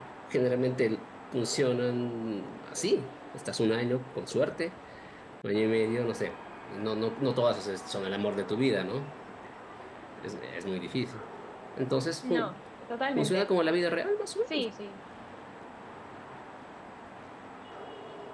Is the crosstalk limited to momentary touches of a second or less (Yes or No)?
Yes